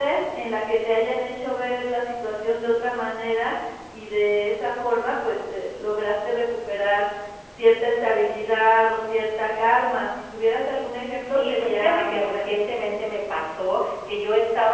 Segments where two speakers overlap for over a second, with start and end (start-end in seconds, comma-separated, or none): 11.2-12.5